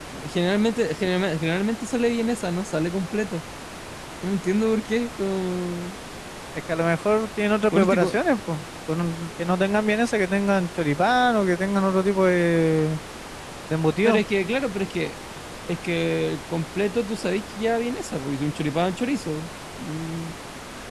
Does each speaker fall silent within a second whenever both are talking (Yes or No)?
Yes